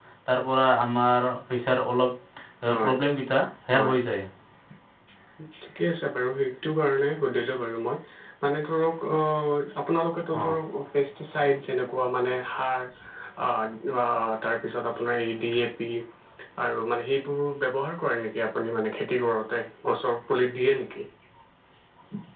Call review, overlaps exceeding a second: none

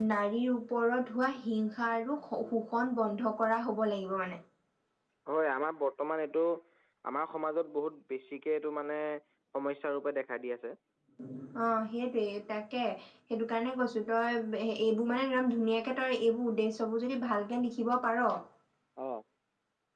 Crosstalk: none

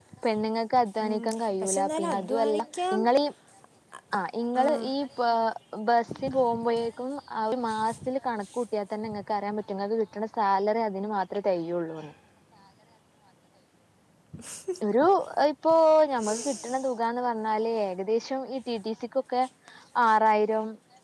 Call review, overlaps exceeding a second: present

